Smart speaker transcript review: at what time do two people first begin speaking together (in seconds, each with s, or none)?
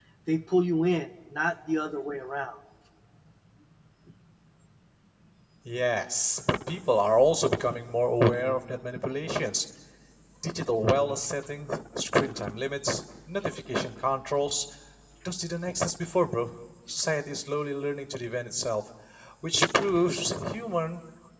none